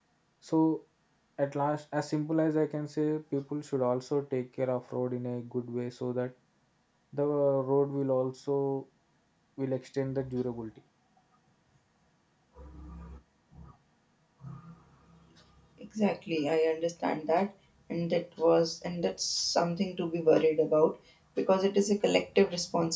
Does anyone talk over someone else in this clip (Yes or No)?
No